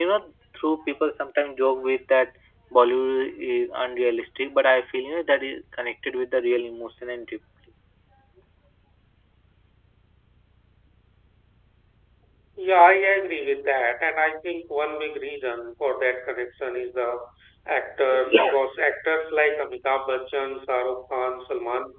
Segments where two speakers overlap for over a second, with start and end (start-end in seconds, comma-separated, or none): none